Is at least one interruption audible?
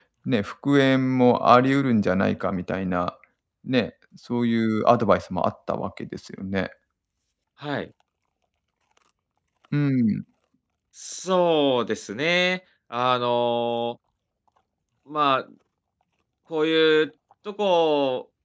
No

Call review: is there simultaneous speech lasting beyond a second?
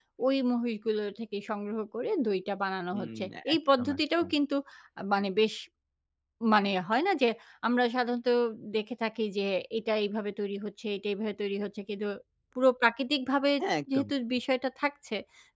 Yes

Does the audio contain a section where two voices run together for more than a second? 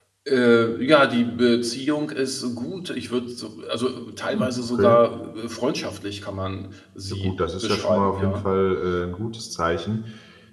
Yes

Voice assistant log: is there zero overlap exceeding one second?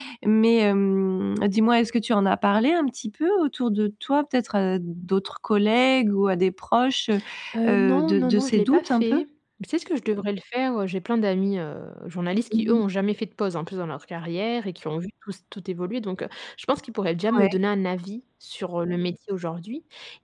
No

